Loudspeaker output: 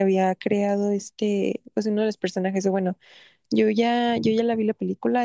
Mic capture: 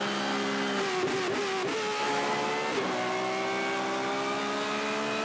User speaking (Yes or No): No